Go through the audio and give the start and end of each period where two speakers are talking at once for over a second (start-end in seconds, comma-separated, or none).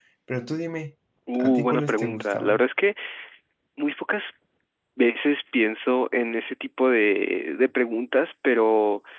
1.4-2.6